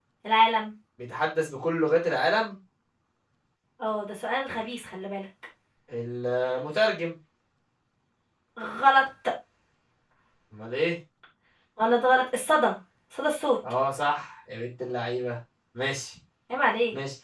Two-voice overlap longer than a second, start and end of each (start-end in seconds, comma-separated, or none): none